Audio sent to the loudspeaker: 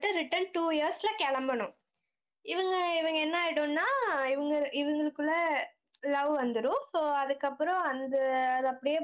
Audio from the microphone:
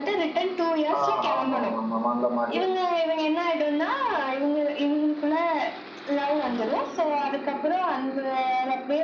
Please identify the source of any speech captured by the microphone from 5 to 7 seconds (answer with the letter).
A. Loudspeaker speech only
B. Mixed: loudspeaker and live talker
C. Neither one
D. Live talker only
A